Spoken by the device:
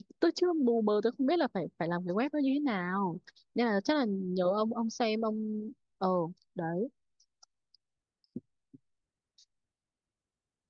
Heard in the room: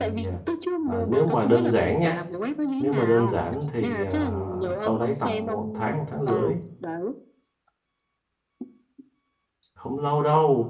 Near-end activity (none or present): present